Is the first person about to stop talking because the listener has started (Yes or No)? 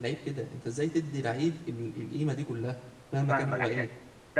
Yes